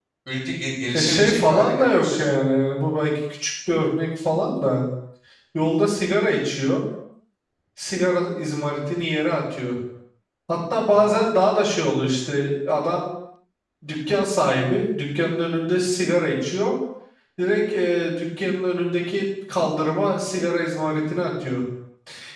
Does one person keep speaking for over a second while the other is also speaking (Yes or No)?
Yes